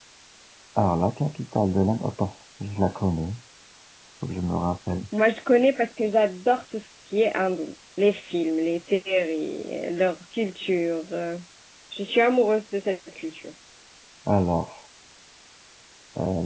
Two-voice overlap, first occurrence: none

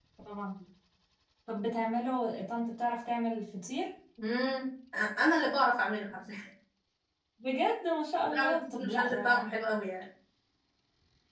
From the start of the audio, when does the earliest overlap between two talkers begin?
8.2 s

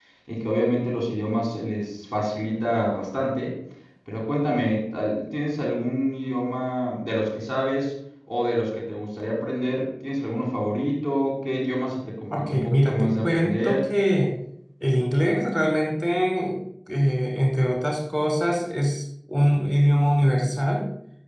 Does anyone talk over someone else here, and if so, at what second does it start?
12.3 s

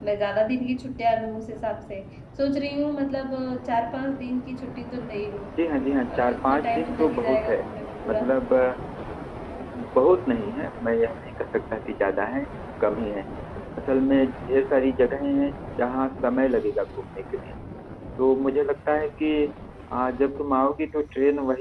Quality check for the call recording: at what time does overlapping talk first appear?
6.1 s

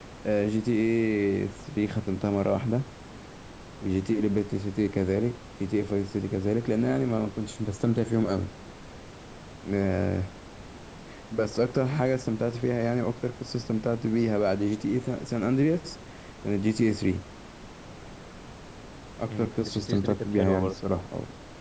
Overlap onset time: 19.3 s

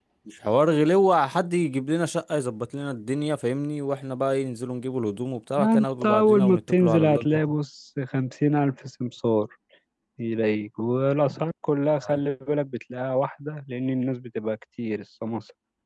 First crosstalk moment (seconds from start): 5.6 s

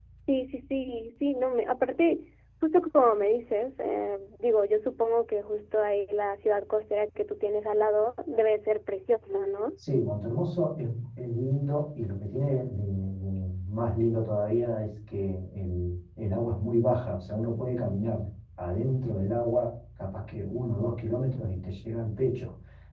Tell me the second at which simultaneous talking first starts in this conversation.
none

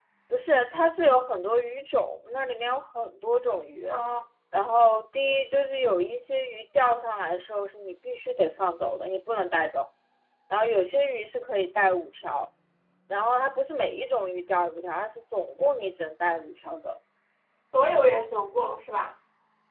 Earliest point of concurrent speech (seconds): none

